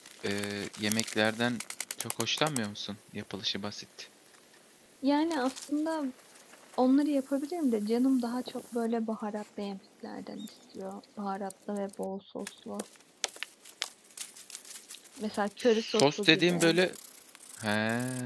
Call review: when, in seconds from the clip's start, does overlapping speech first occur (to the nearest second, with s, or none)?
16 s